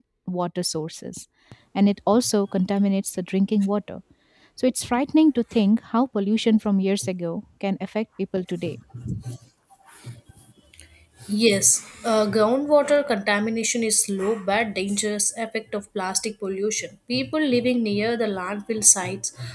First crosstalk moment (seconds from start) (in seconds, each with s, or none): none